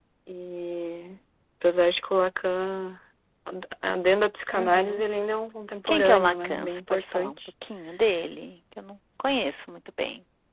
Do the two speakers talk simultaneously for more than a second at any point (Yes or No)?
Yes